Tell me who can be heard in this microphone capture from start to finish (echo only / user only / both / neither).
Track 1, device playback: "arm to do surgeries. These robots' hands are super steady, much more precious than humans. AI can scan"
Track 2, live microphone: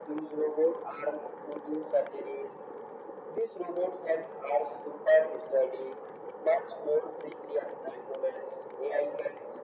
echo only